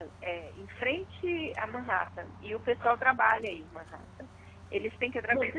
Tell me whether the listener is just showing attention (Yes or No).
Yes